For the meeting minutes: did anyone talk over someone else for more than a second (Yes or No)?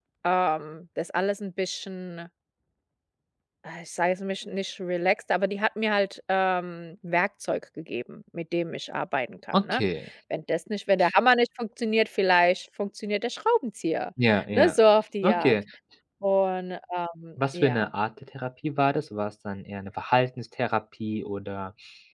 No